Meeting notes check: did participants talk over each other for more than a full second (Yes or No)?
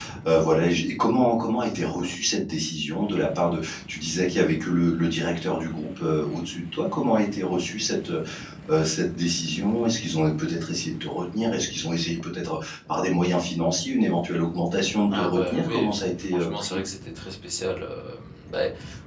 Yes